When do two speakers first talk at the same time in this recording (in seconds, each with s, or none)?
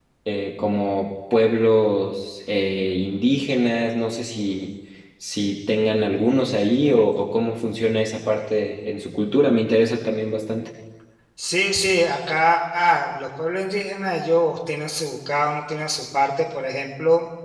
none